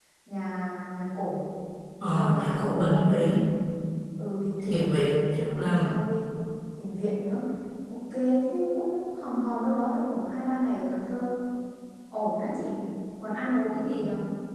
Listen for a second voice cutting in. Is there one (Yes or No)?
Yes